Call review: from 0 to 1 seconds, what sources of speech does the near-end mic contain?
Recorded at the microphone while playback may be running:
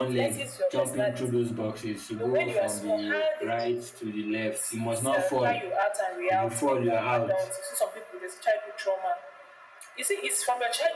both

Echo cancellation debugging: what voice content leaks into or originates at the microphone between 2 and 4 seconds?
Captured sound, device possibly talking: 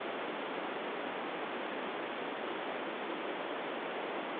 neither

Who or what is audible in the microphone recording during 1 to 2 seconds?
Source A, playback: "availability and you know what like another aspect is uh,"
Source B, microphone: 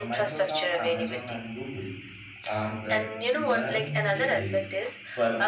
both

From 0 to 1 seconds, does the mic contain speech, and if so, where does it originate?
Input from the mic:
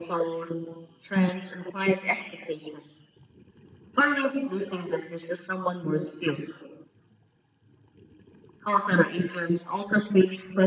echo only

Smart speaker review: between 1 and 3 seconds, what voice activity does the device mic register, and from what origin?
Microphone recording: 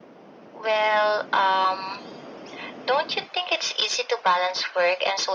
echo only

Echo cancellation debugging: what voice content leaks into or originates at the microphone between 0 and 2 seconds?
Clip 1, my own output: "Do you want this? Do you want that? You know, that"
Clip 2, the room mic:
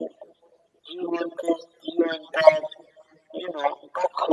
echo only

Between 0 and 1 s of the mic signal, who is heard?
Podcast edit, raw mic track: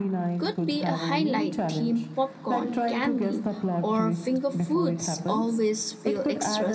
both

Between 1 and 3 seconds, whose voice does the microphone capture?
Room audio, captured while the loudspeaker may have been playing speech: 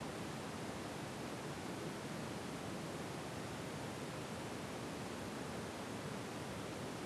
neither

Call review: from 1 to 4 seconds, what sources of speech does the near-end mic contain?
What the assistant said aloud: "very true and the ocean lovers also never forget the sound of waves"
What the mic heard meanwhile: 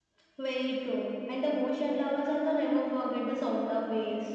echo only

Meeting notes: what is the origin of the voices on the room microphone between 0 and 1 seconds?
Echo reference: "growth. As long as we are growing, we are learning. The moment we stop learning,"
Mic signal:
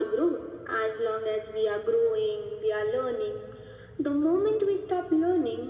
echo only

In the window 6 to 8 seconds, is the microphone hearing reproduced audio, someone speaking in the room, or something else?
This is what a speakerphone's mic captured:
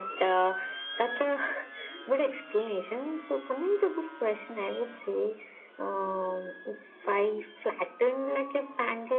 echo only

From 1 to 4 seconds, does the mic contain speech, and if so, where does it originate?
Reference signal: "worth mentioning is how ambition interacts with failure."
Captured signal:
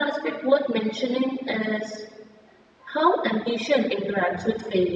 echo only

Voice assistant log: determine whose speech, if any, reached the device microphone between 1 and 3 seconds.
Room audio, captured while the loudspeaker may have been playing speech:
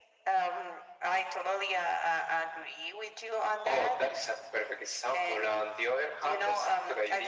echo only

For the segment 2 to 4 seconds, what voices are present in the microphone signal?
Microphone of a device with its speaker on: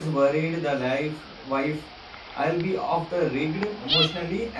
user only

